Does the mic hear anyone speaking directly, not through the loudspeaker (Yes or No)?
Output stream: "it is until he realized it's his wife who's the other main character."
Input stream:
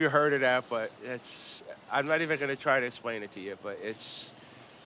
Yes